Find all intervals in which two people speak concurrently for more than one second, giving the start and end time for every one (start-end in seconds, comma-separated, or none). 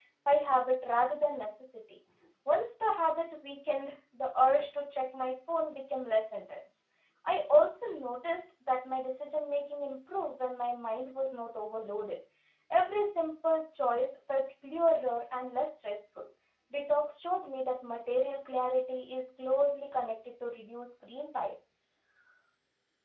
none